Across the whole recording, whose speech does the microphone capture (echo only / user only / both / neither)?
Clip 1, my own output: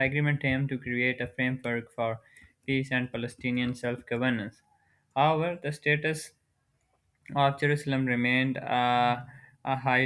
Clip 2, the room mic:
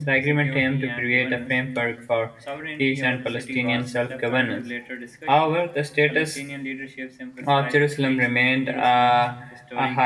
both